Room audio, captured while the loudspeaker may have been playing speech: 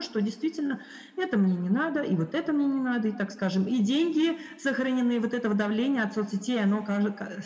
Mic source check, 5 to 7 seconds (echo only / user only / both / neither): echo only